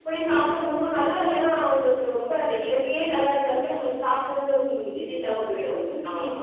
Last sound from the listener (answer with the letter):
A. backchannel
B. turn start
B